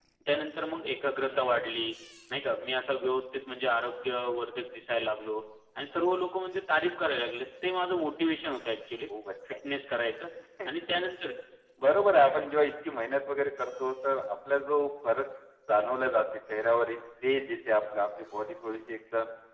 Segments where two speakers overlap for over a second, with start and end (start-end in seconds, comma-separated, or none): none